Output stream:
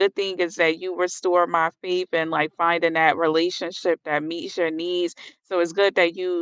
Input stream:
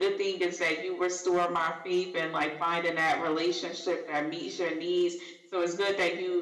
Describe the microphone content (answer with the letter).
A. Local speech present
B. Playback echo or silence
B